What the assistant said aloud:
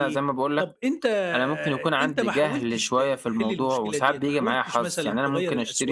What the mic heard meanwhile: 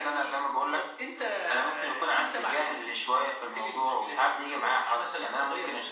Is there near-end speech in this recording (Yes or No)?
No